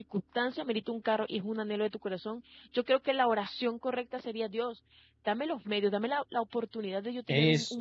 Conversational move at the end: listening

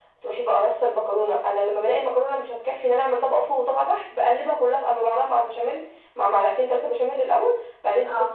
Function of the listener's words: listening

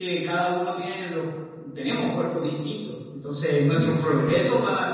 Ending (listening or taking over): listening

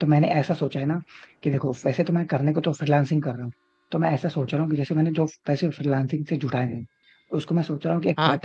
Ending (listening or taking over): listening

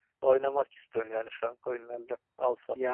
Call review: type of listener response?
taking over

